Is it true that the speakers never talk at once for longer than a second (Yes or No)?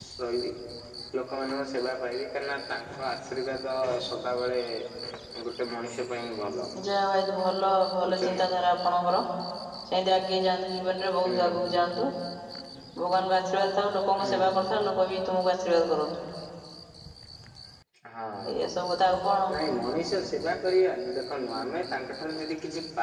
Yes